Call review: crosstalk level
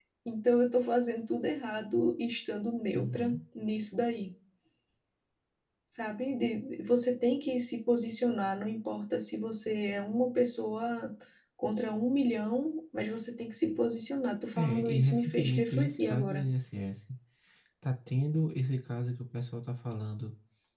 present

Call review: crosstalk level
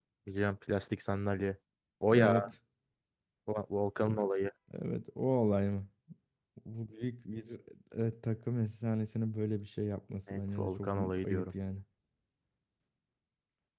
present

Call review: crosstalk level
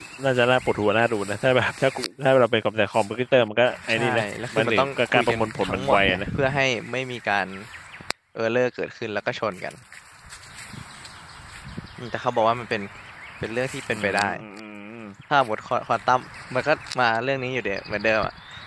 present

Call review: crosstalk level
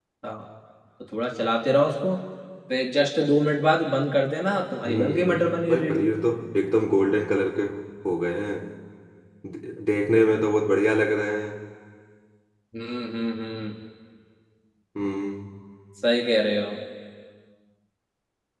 present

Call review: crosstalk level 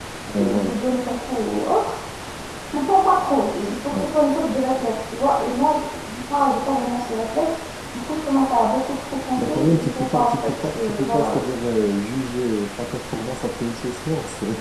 present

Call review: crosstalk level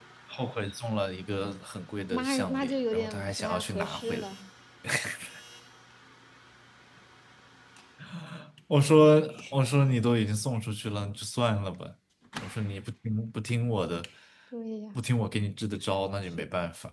present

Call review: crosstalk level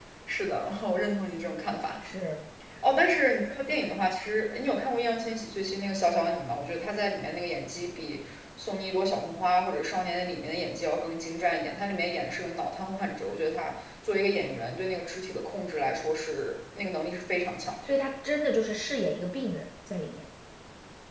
none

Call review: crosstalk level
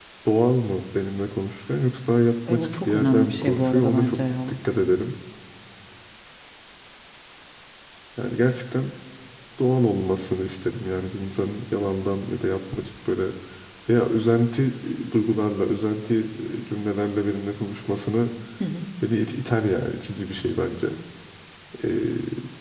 present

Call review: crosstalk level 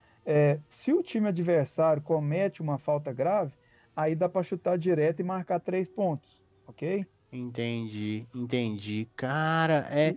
none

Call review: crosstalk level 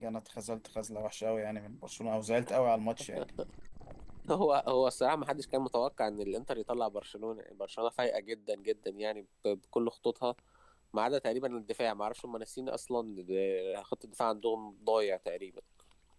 none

